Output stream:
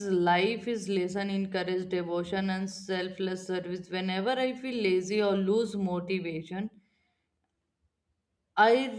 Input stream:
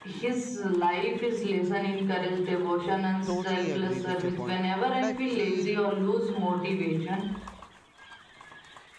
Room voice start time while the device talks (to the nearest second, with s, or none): 3 s